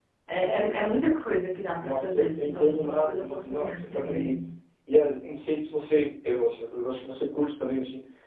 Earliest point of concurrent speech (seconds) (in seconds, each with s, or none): 1.8 s